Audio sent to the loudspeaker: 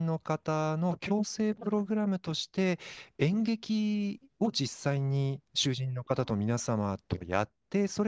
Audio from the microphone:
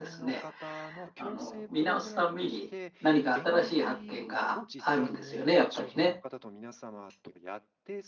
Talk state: both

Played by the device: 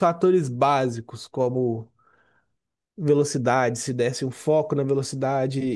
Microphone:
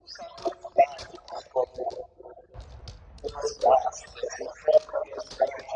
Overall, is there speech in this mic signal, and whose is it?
echo only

